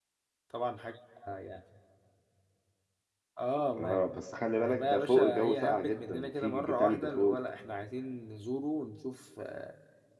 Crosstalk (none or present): present